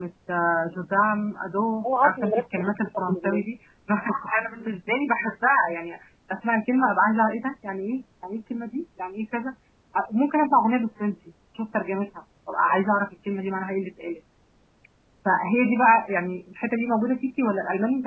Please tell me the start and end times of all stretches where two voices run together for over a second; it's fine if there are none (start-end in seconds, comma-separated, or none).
2.0-3.4